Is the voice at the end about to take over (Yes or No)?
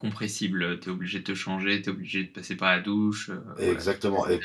Yes